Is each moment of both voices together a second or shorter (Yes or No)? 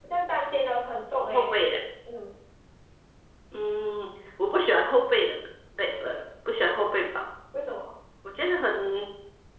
Yes